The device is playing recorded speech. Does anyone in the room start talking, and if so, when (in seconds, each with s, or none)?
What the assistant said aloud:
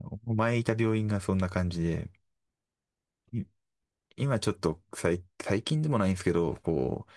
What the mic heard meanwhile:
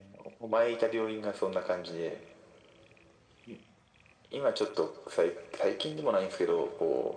none